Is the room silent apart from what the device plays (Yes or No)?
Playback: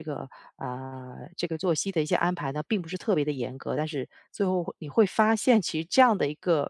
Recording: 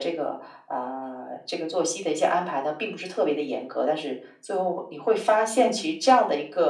No